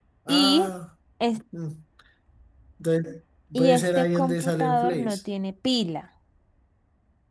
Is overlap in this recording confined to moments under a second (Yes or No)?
No